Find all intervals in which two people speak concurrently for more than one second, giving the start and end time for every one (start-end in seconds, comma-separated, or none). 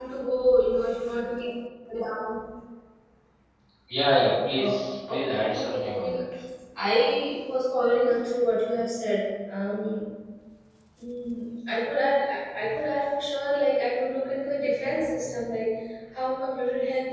4.6-6.2